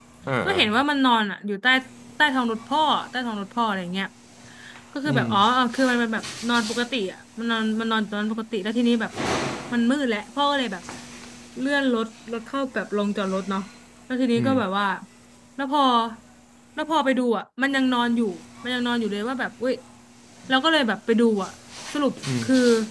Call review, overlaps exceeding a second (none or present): none